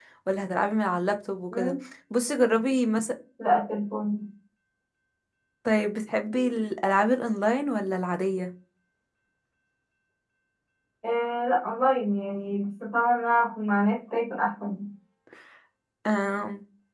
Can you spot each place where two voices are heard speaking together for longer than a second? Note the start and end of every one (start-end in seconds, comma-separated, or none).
none